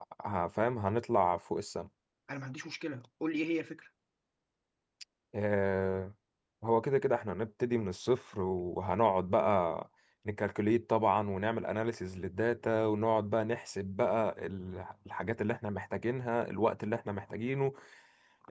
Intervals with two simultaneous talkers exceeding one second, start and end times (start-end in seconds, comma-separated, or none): none